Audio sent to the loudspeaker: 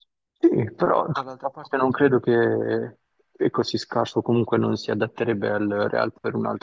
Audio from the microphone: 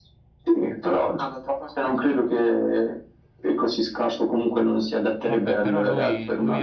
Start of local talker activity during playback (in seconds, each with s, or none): 5.2 s